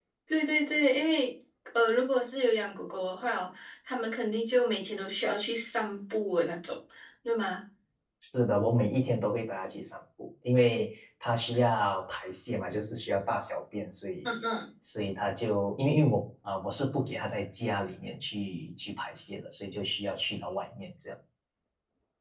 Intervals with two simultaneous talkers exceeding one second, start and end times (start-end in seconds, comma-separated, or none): none